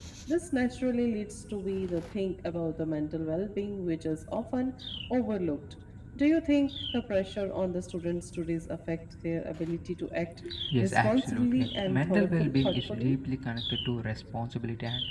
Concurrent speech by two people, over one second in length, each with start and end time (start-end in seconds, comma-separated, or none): 10.8-13.2